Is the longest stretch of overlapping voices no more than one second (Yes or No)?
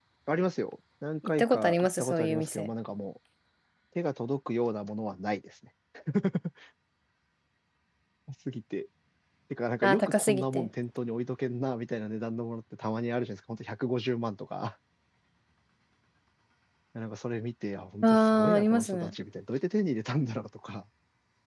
No